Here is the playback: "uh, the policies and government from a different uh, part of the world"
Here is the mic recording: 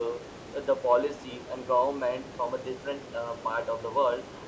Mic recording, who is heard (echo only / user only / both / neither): echo only